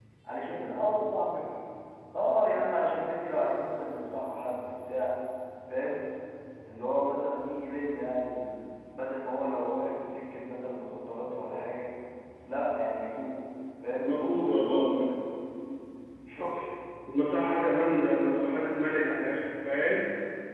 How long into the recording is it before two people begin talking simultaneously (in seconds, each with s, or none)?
14.0 s